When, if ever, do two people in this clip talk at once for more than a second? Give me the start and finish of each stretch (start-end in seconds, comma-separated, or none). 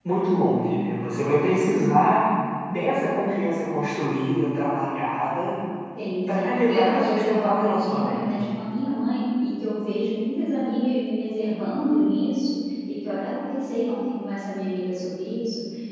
6.3-8.4